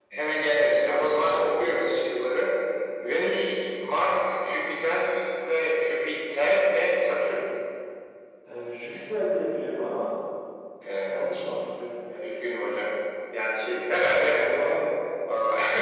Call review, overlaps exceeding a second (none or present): present